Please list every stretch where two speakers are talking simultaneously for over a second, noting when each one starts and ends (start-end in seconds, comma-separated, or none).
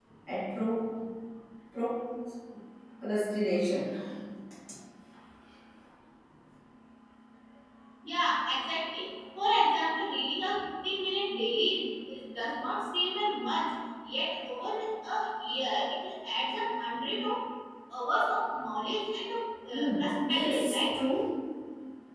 19.7-21.0